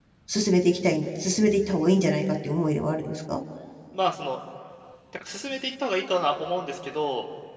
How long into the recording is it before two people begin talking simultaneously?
none

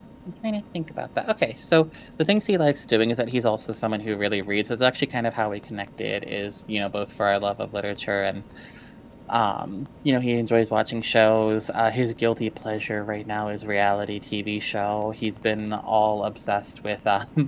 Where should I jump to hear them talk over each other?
none

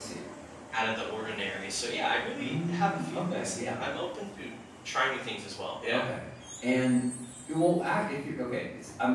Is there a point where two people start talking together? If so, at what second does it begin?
2 s

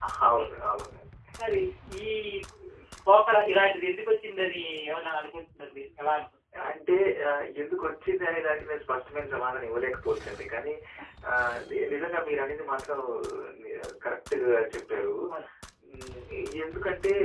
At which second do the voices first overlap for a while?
none

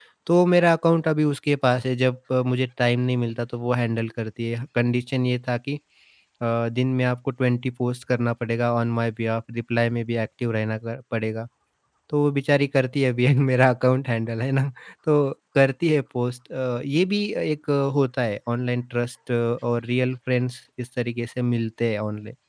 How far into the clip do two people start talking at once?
none

